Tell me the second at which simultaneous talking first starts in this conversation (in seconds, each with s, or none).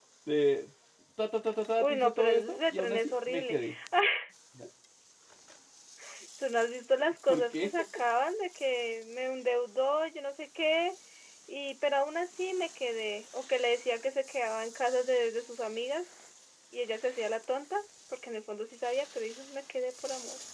1.8 s